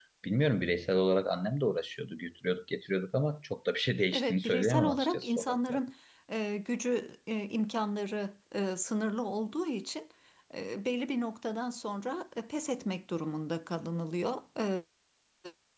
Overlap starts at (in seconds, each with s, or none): 4.1 s